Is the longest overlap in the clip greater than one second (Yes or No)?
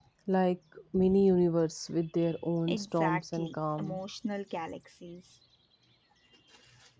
Yes